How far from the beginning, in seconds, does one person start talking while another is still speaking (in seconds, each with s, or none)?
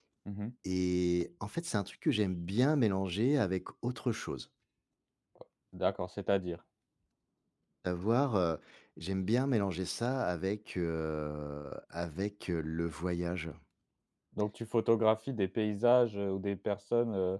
none